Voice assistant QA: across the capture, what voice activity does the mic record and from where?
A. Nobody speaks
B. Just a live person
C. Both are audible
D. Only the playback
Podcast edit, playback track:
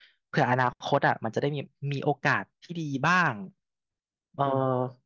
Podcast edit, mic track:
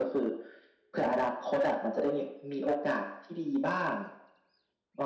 D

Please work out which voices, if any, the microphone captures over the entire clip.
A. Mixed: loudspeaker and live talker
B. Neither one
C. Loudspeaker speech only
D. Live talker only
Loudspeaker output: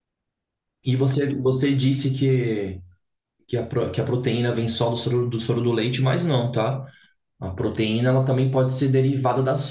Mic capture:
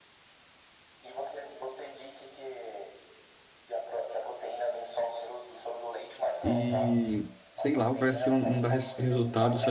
A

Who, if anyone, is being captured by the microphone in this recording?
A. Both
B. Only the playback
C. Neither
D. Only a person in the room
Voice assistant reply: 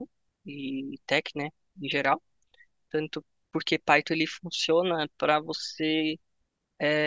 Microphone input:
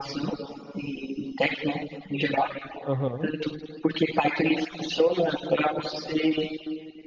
A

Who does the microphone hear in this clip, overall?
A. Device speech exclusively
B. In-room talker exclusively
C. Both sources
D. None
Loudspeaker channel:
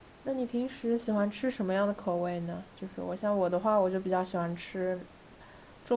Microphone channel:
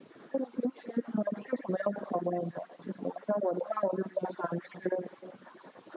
A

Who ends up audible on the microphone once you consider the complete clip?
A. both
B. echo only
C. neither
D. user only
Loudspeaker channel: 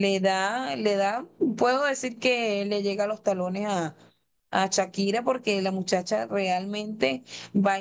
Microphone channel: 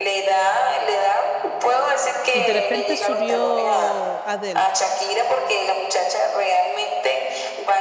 A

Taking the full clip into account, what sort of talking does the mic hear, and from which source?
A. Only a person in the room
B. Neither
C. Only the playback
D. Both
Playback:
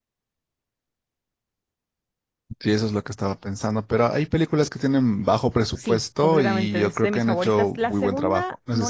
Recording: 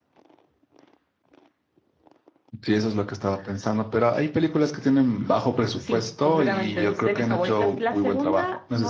C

